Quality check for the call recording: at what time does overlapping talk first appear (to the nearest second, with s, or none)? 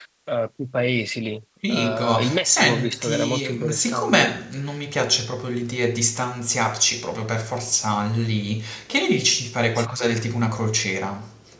2 s